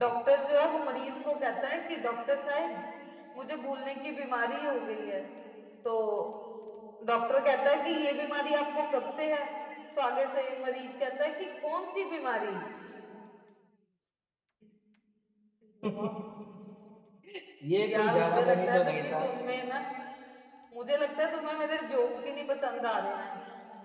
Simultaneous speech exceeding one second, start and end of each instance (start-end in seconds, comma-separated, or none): 17.9-19.2